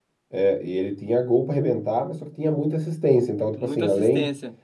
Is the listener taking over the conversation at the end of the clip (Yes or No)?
No